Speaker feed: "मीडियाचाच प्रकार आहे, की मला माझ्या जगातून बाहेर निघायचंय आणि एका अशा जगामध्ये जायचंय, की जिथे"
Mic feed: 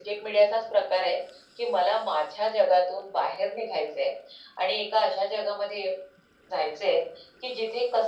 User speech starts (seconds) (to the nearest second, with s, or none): none